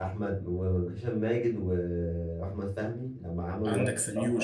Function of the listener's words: taking over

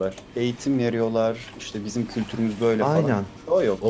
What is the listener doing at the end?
taking over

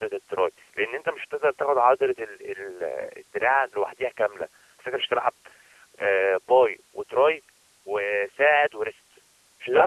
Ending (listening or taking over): taking over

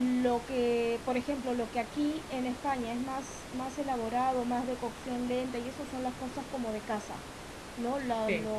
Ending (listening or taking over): listening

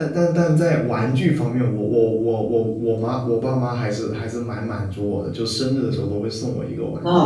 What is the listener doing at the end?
taking over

